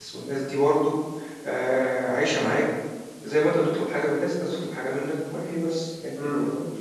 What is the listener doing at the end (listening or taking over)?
taking over